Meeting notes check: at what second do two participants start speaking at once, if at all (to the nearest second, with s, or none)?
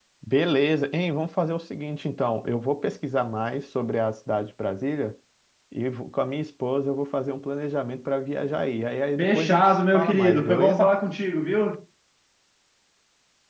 9 s